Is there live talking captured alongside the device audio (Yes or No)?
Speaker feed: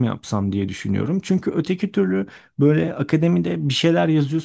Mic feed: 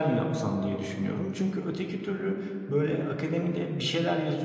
No